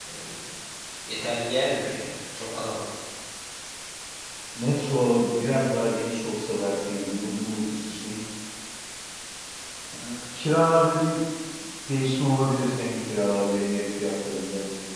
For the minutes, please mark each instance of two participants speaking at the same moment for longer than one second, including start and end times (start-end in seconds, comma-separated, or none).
none